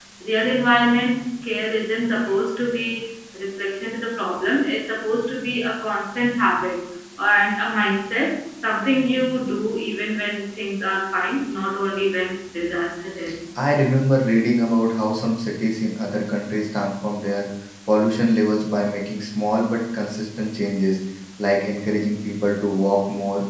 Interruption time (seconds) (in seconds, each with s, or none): none